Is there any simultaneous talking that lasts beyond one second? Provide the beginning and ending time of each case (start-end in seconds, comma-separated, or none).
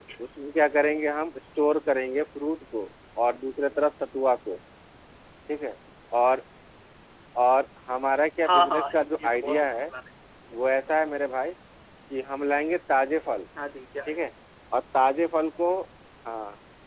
8.4-9.7